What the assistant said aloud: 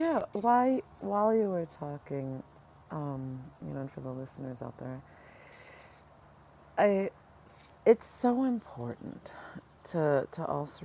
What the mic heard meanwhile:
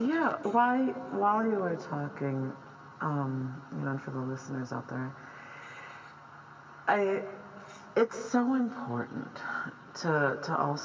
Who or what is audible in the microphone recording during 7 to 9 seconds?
echo only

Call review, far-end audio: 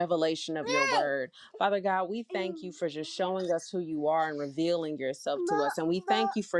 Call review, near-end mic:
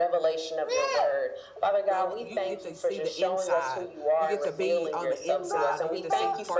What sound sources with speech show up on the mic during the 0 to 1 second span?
echo only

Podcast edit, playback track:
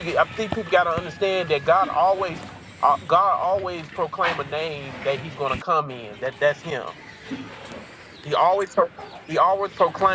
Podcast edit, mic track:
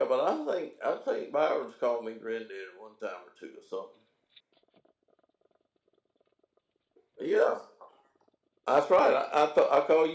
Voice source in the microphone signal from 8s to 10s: user only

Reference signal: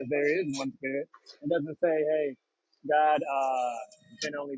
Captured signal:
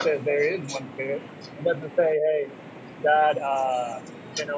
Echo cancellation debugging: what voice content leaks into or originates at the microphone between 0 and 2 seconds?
echo only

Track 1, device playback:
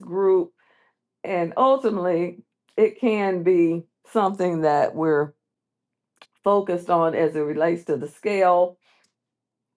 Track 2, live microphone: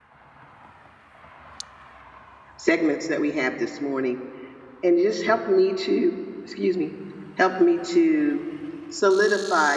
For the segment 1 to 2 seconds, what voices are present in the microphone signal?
neither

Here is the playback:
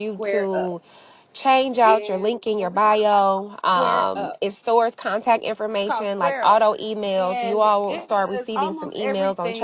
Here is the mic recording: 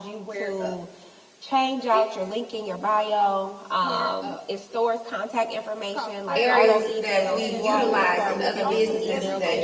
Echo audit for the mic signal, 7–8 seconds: both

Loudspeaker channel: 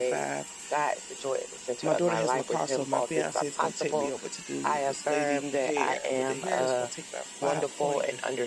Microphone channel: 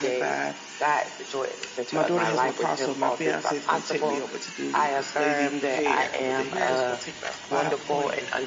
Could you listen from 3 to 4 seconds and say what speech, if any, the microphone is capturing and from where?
echo only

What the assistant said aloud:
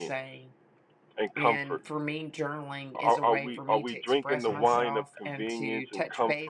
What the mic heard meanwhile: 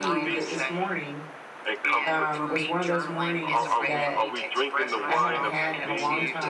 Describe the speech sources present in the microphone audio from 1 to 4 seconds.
both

